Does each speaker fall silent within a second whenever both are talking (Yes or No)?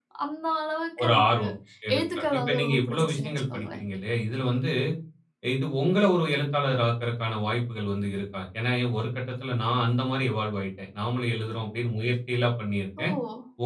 No